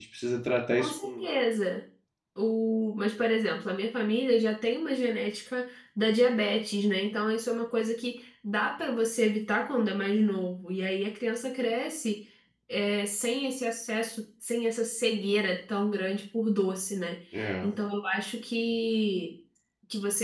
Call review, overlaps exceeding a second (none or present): none